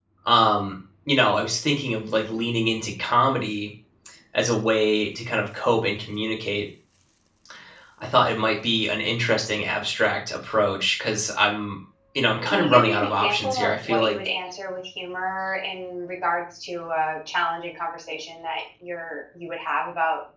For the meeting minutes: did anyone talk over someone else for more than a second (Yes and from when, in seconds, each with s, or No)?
Yes, from 12.4 s